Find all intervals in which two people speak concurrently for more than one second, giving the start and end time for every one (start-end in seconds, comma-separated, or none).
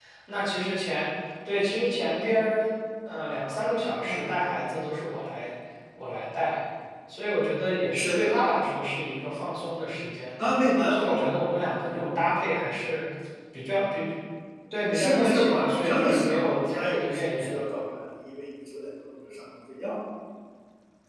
14.9-17.6